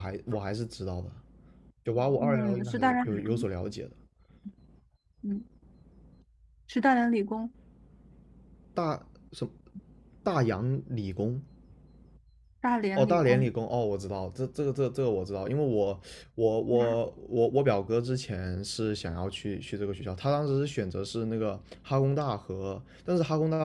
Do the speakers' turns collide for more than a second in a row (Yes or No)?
Yes